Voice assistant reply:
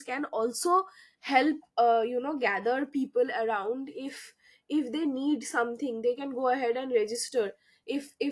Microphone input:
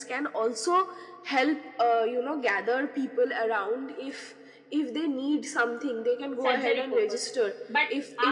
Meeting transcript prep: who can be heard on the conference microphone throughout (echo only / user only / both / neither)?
both